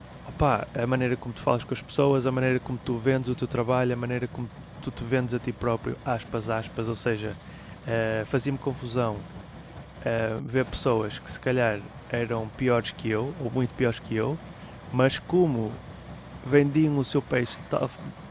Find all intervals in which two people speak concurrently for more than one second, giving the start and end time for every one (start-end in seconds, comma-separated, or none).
none